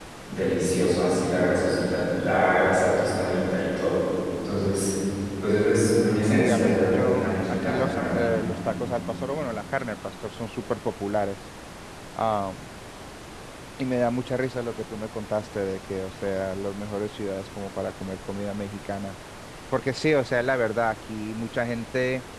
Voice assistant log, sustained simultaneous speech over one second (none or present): present